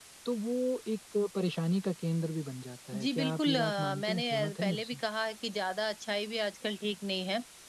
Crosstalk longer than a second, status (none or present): present